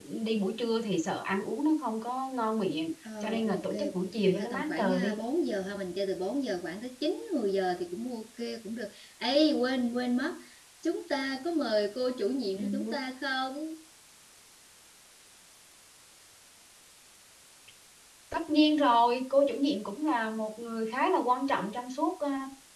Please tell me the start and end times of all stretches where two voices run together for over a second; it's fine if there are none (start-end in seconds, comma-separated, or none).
3.2-5.1